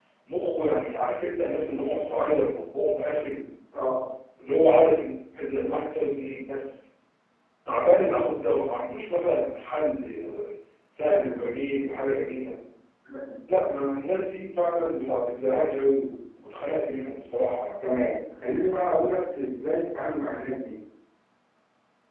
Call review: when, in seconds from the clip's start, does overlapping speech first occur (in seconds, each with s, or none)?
none